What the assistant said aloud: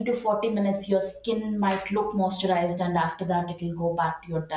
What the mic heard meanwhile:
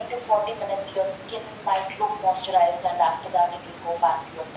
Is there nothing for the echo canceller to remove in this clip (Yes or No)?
No